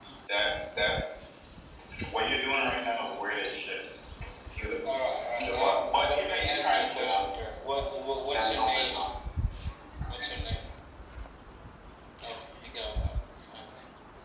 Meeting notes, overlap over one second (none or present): present